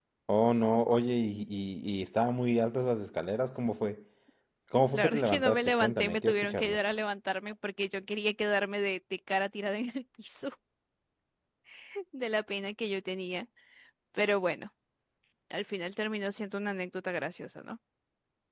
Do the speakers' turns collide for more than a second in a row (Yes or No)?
Yes